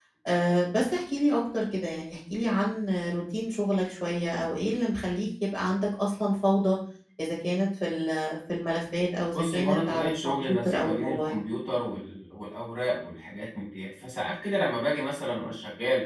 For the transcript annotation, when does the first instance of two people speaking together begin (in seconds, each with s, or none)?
9.3 s